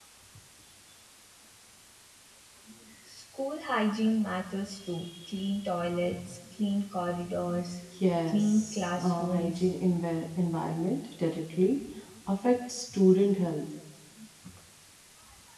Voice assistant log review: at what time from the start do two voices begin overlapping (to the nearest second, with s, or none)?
8 s